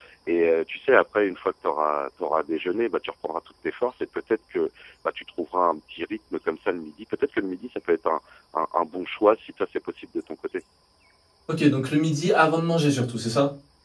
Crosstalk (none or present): none